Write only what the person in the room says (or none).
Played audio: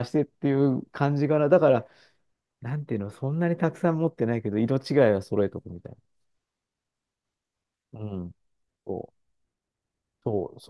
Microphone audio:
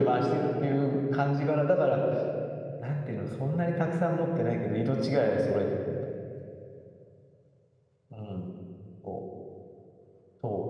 none